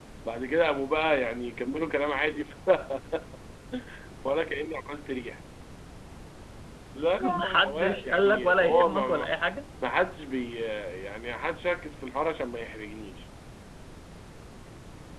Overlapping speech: Yes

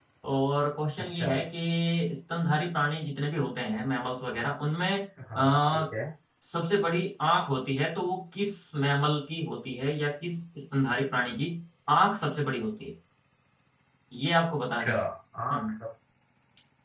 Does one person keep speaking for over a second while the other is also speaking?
No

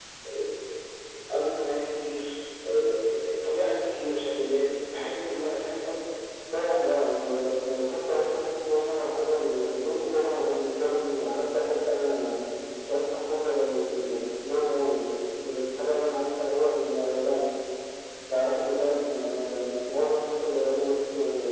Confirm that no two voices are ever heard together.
Yes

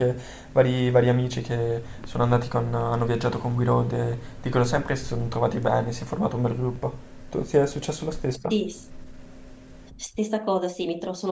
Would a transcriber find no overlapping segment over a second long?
Yes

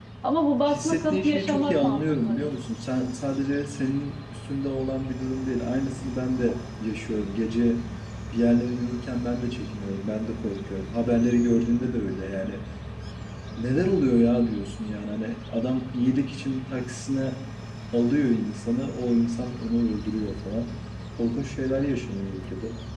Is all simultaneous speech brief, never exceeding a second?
No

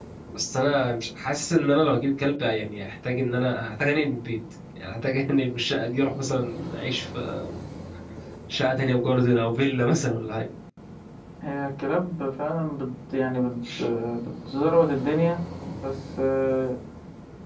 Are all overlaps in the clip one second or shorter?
Yes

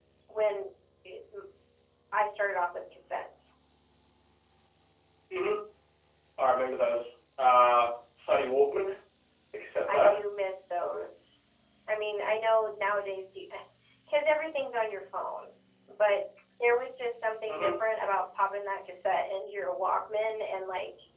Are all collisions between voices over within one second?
Yes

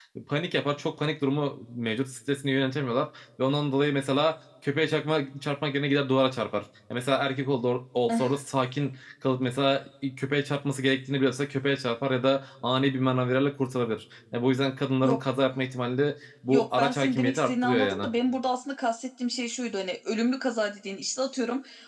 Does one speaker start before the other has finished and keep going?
Yes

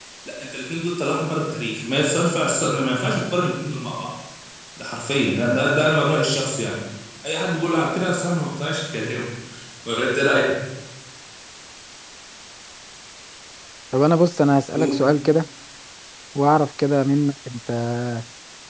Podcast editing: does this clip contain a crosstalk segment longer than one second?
No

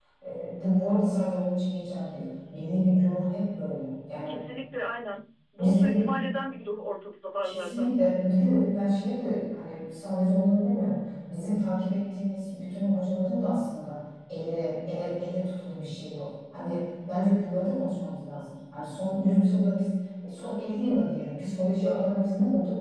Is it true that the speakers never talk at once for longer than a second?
Yes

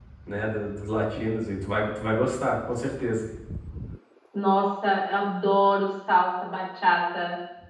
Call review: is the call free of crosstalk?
Yes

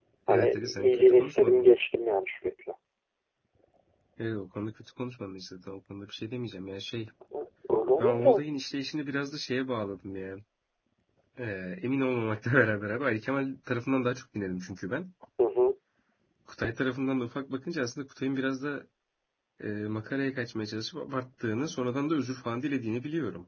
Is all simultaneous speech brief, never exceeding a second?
No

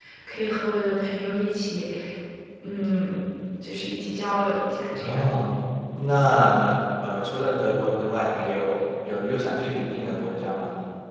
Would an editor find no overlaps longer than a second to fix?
Yes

